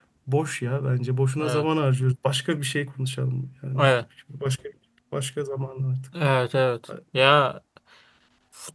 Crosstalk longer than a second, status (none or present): none